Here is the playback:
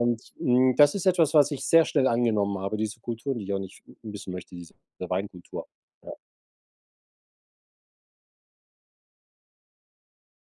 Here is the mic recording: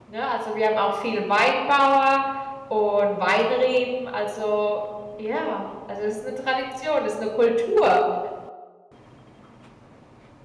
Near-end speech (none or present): present